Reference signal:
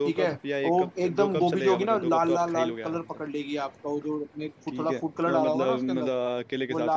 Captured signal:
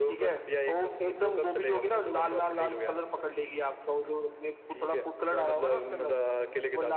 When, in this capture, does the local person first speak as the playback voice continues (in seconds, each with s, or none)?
none